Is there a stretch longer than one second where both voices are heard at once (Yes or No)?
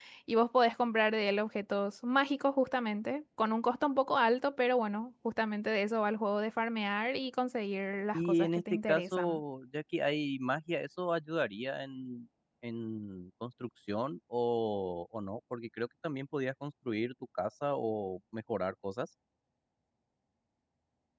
Yes